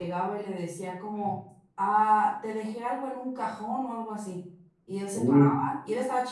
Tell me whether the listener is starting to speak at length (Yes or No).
No